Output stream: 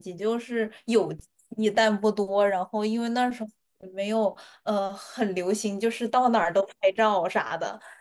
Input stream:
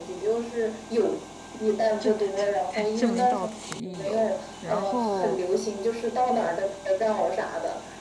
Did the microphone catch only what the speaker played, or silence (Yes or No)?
No